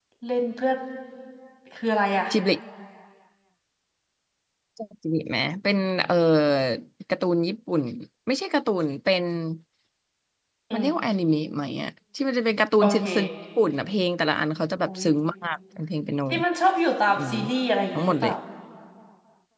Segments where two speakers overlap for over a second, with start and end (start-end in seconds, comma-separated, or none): none